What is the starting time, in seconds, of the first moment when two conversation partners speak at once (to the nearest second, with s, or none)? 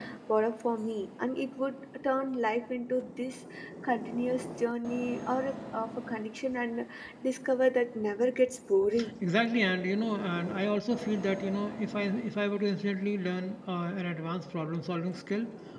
none